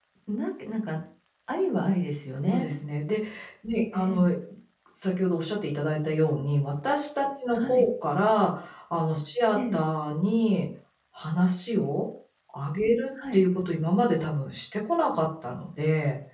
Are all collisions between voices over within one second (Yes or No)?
Yes